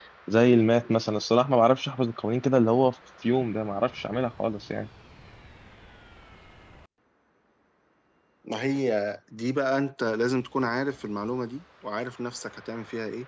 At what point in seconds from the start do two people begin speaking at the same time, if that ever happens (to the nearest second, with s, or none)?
none